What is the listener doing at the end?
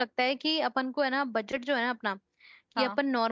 listening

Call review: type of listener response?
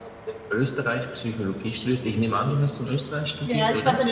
taking over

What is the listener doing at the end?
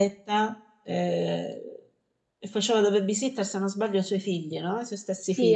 taking over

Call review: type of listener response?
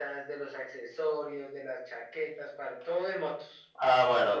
taking over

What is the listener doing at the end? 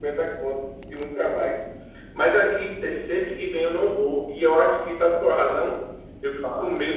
listening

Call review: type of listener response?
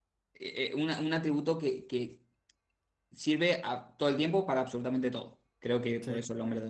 listening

